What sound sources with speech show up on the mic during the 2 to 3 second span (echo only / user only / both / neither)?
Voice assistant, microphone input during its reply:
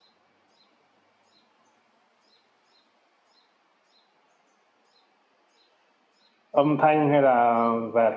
neither